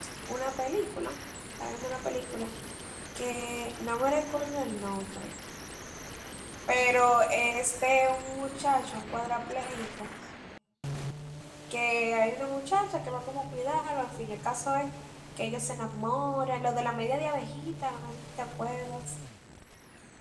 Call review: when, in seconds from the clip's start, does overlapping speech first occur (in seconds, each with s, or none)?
none